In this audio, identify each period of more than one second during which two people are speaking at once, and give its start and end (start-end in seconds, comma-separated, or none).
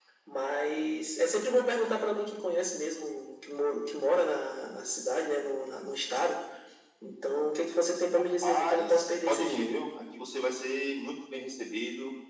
8.4-9.7